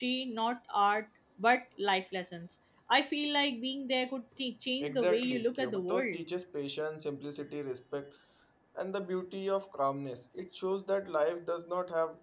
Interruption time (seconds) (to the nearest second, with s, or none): 5 s